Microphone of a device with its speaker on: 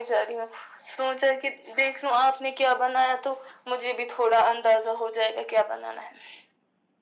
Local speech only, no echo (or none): none